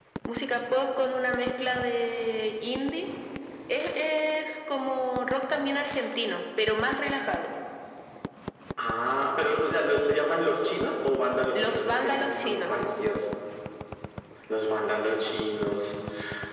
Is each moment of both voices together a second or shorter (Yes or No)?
No